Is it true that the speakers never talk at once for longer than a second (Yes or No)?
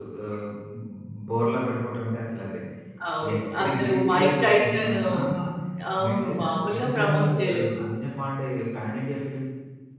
No